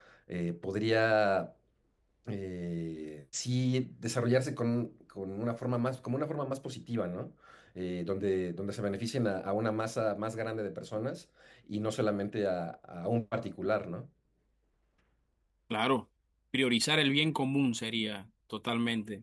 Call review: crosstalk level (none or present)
none